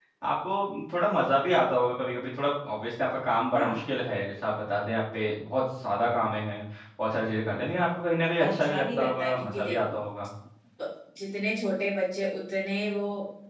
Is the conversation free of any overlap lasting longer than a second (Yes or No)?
No